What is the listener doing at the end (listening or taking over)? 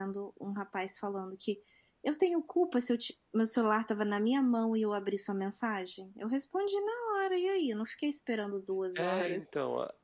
taking over